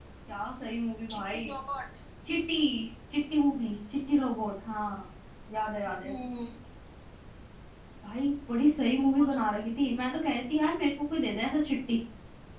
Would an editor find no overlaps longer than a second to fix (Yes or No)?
Yes